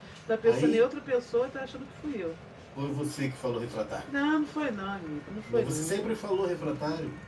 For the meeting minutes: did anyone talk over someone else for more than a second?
No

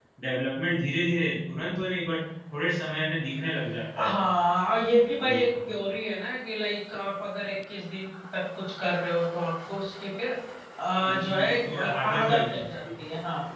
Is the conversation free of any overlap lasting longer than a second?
No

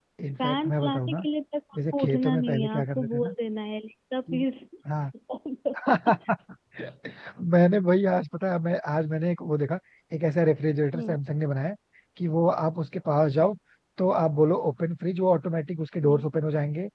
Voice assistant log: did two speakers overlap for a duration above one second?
Yes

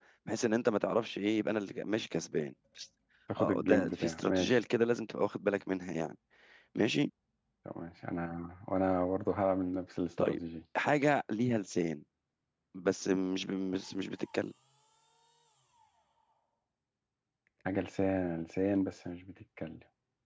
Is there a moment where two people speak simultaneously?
Yes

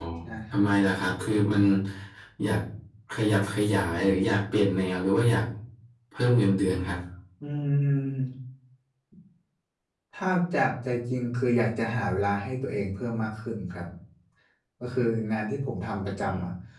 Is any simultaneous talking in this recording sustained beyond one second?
No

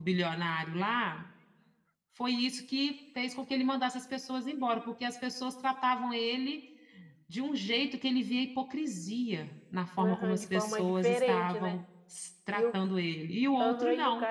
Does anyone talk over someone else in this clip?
Yes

